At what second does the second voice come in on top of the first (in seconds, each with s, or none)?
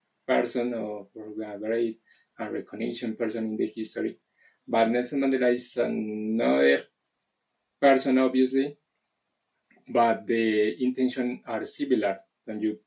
none